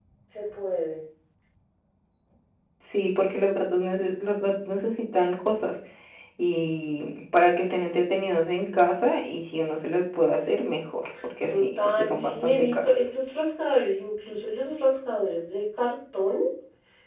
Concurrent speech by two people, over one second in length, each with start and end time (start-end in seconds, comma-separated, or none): 11.5-13.0